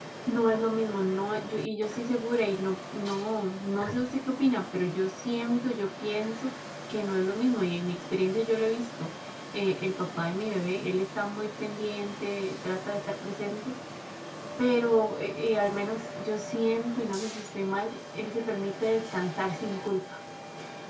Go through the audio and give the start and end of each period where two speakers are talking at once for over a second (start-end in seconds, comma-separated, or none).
none